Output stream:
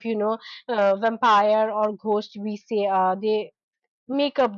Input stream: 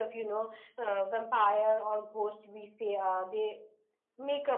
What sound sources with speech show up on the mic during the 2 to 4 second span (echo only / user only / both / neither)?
echo only